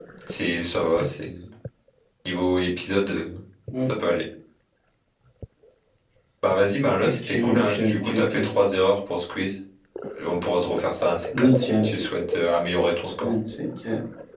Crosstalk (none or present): present